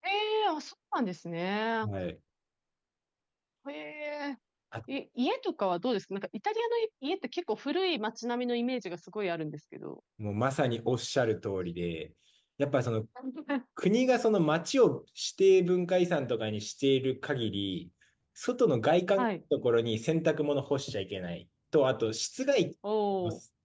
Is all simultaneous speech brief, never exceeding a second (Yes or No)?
Yes